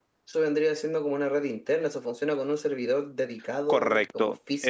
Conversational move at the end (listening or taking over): taking over